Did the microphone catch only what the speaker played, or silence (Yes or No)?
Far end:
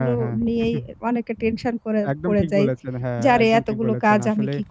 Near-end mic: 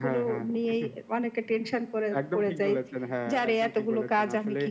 Yes